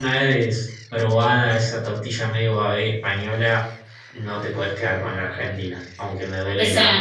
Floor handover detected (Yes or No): Yes